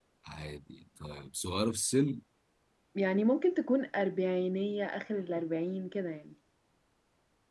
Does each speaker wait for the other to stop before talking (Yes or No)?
Yes